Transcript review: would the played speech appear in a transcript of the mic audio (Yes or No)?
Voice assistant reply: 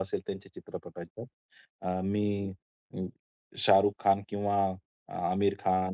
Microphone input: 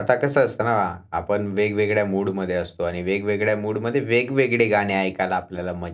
No